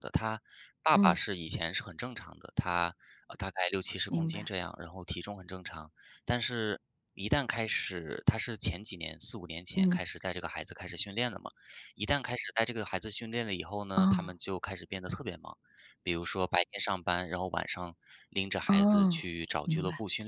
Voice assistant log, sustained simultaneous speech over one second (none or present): none